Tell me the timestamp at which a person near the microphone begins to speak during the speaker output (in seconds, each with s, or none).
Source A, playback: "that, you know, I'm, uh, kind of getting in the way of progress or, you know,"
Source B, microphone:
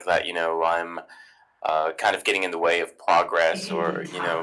3.5 s